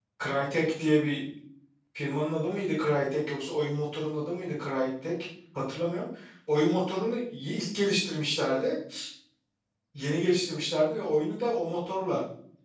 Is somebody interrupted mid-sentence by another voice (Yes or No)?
No